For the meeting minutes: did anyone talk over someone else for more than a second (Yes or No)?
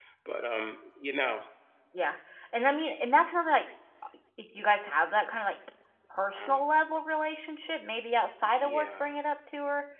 No